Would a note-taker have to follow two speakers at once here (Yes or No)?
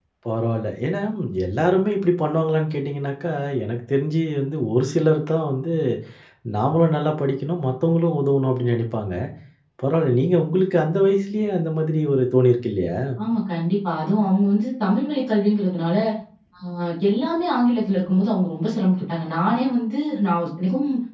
No